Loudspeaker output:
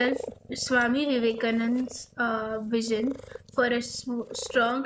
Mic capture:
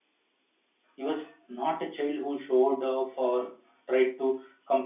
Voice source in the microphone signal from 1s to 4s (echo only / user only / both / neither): user only